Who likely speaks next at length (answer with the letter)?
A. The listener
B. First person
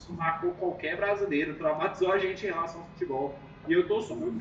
B